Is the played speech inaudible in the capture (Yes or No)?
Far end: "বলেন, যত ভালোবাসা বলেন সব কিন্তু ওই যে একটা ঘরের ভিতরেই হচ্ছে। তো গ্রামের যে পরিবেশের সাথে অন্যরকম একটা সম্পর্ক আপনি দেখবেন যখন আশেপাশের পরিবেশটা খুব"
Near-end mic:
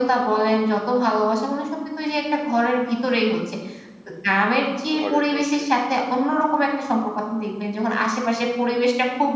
No